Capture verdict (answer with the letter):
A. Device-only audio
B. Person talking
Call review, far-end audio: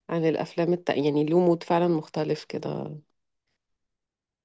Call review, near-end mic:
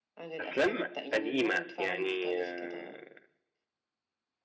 B